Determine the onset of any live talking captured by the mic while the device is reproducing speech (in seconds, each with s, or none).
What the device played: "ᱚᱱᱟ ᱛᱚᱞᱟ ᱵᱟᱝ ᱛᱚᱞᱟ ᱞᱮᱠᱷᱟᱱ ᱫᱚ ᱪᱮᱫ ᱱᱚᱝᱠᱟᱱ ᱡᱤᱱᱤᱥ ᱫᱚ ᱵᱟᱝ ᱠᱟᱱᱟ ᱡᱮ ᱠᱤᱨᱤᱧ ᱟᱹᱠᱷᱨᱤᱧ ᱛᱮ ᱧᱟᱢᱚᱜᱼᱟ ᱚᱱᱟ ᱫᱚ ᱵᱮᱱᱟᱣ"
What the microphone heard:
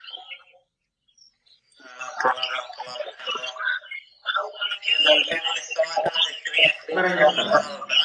6.9 s